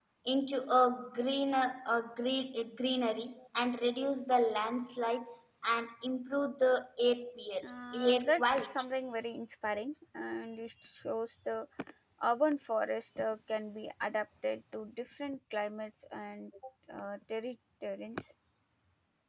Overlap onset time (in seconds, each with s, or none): 7.6 s